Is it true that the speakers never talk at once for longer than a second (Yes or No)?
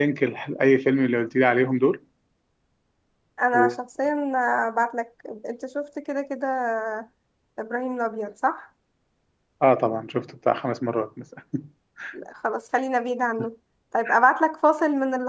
Yes